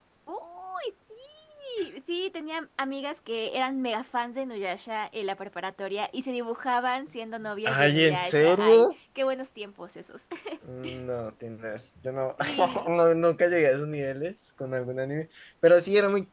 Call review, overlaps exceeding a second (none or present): present